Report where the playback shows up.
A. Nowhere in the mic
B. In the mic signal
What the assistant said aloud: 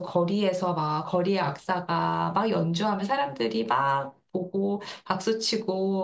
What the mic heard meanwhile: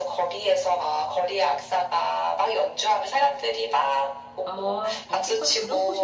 B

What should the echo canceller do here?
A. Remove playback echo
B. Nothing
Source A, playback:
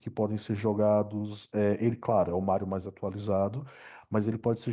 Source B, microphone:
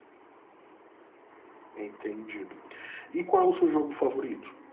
B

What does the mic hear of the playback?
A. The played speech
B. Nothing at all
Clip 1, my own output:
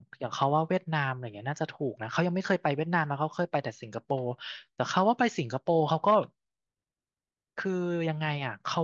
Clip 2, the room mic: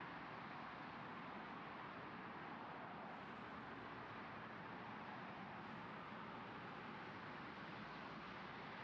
B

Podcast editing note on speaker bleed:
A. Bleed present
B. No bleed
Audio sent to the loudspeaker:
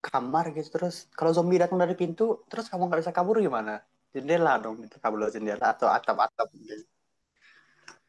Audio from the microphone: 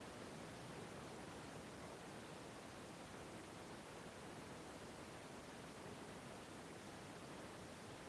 B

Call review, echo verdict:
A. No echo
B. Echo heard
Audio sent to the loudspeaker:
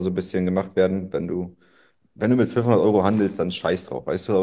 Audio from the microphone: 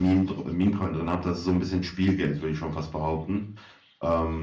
A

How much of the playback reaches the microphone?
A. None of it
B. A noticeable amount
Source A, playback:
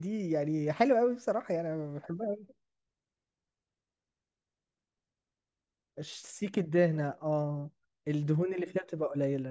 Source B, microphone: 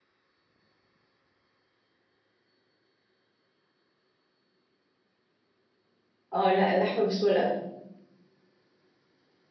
A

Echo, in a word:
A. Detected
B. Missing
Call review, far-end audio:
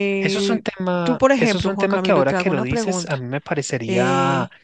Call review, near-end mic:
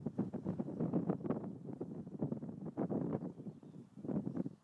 B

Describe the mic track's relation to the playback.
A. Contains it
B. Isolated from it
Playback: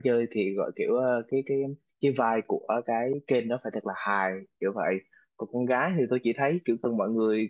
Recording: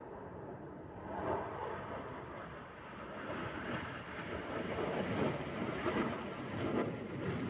B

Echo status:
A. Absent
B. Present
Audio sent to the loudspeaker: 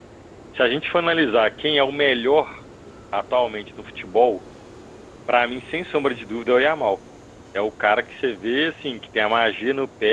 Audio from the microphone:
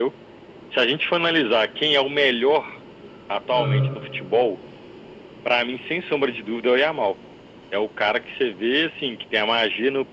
B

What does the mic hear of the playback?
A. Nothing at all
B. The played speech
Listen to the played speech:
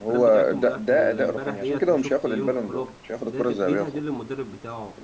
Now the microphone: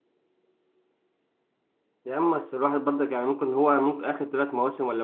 A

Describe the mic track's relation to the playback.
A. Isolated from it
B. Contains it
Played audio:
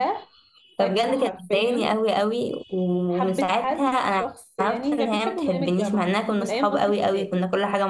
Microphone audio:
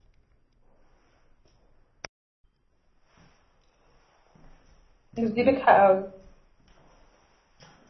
A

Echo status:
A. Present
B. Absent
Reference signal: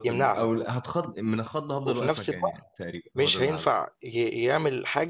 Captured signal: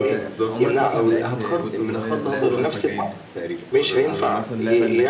A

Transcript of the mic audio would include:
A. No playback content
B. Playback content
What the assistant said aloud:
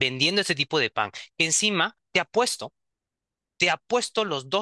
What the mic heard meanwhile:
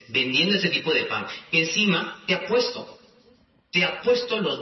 B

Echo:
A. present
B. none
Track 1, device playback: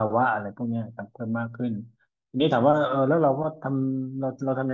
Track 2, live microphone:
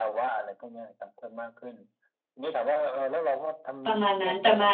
A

